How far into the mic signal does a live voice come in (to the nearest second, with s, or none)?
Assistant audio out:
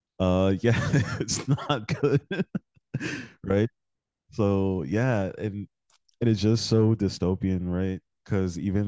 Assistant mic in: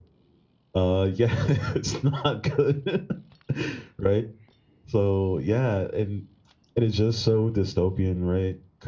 none